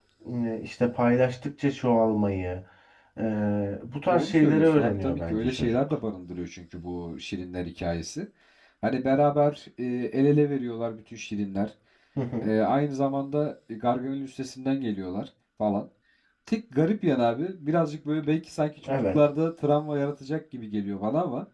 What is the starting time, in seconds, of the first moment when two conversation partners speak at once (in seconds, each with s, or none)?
4.1 s